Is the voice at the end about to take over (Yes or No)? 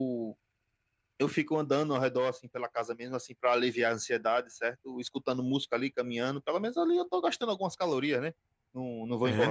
Yes